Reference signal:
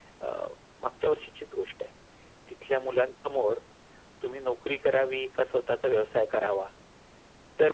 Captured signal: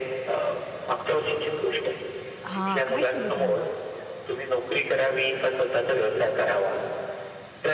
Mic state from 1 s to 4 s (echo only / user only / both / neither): both